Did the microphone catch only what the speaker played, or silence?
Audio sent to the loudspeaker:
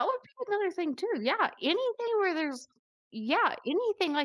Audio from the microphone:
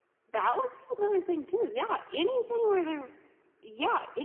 Yes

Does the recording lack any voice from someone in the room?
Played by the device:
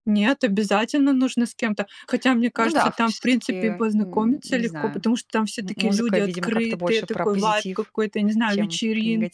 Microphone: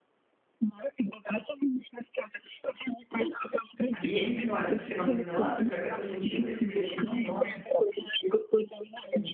No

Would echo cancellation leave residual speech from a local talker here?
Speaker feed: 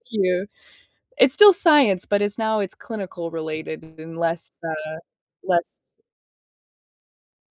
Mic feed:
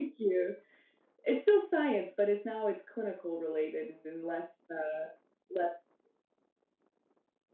No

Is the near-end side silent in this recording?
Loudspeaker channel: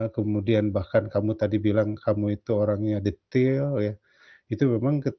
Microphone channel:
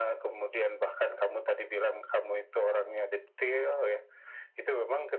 Yes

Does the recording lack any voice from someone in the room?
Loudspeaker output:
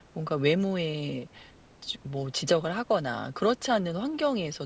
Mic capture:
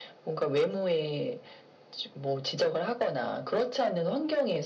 Yes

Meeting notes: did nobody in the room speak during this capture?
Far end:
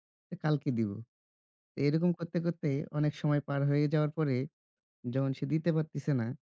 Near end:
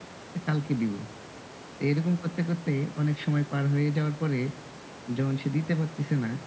Yes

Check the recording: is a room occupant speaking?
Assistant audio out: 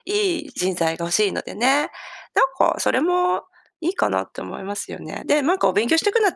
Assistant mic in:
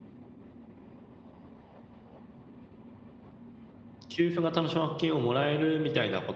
Yes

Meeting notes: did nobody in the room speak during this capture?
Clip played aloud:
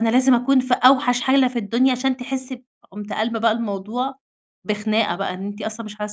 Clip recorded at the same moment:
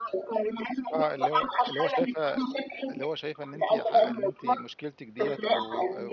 No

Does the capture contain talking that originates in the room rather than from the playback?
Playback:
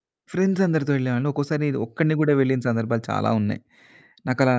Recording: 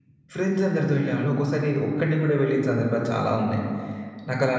No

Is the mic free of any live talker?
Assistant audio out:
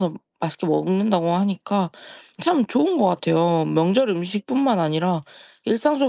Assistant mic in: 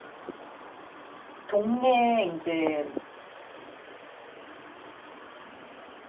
No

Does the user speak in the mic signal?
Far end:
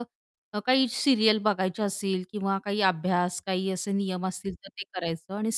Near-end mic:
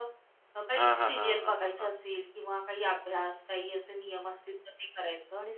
Yes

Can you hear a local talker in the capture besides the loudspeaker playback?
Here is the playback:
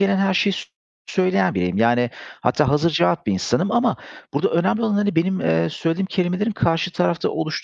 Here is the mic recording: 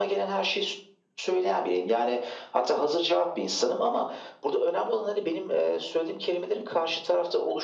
No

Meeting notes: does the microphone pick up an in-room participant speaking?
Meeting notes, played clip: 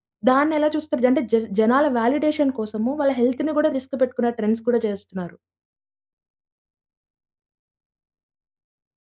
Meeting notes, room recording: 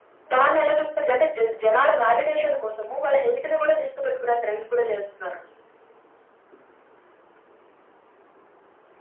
No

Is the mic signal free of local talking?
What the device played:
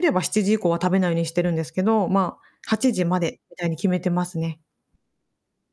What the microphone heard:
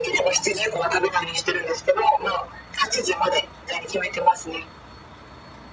Yes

